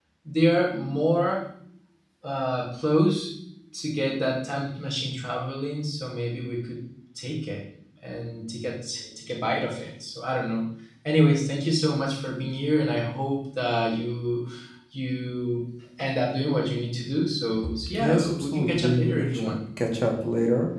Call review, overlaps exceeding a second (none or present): present